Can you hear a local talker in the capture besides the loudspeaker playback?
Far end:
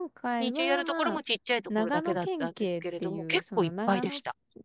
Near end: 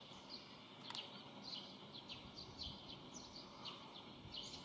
No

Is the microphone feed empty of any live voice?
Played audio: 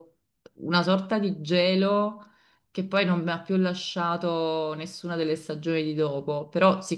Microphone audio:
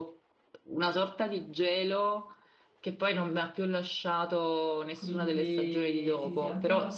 No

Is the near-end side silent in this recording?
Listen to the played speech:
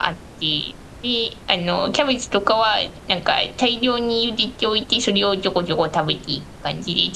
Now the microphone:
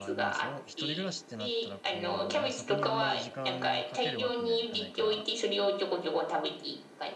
No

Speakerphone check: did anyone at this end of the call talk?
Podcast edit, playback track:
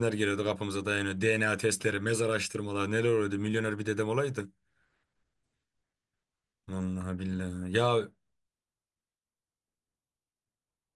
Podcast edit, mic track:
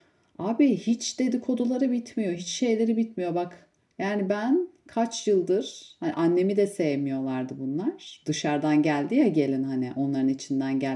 Yes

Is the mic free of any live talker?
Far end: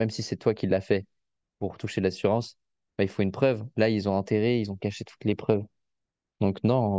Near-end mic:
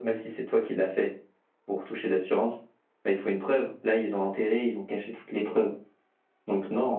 Yes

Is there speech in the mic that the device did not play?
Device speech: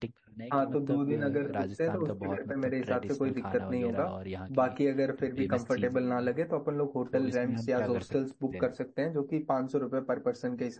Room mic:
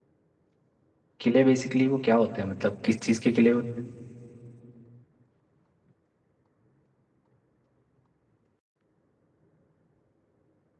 Yes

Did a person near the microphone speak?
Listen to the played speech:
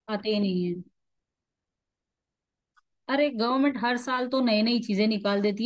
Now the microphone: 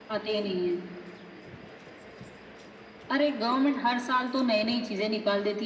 No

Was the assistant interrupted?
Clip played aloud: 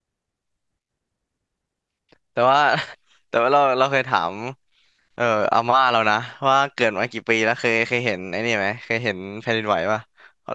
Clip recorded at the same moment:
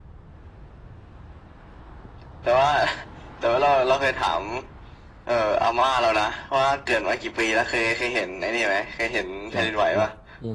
Yes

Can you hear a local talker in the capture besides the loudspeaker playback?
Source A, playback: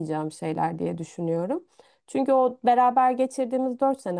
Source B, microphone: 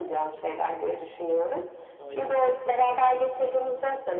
Yes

